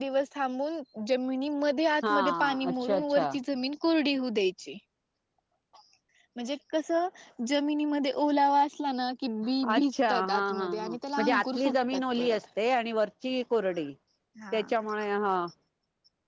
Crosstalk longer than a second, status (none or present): present